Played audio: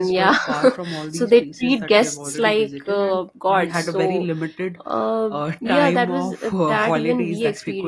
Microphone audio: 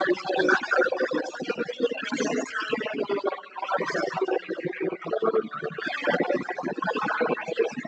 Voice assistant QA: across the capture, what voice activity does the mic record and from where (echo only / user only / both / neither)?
echo only